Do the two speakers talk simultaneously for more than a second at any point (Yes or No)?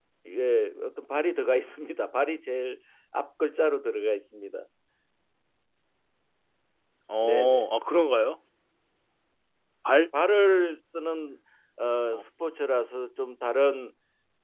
No